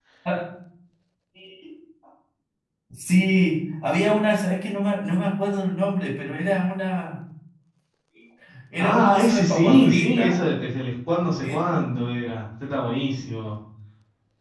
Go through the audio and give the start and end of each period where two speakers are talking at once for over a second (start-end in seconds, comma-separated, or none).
8.8-10.5